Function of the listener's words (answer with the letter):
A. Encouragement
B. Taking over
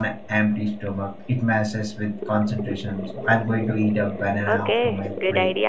B